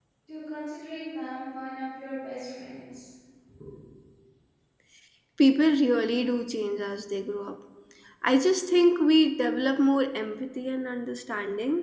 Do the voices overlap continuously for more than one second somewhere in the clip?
No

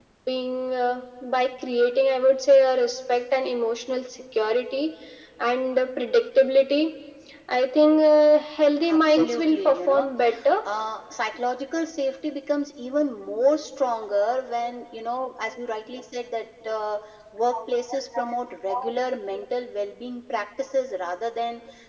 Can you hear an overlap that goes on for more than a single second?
Yes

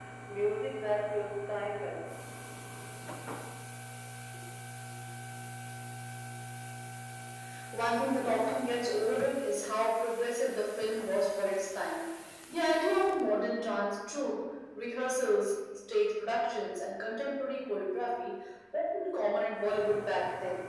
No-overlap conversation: Yes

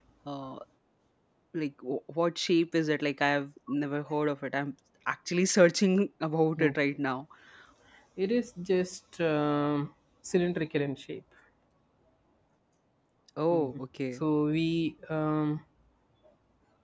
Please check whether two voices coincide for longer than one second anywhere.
No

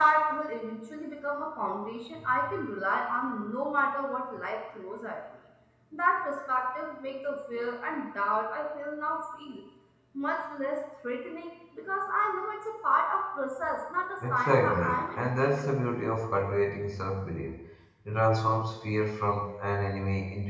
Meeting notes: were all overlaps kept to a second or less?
No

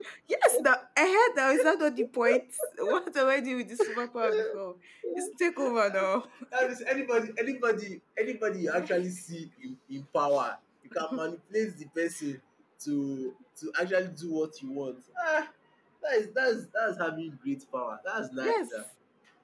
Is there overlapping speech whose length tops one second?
No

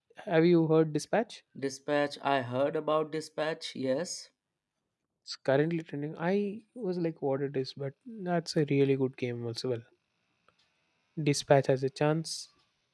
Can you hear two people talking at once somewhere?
No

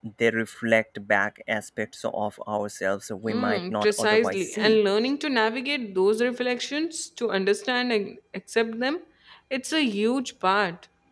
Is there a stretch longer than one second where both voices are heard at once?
Yes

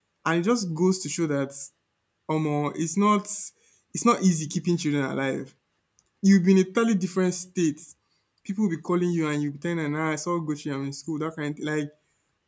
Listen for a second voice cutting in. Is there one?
No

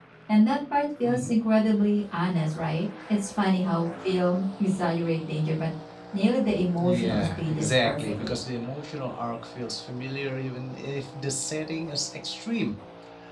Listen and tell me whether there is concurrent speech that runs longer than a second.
Yes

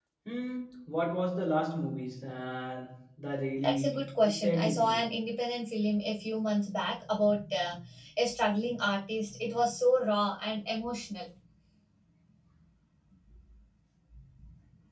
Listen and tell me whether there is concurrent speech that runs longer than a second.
Yes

